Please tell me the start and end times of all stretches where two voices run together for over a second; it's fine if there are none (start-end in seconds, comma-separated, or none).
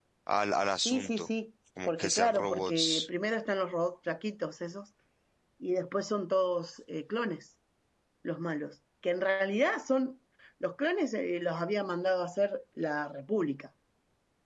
1.8-3.1